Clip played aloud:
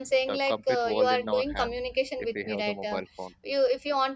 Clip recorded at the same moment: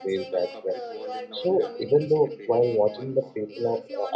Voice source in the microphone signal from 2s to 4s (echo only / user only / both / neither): both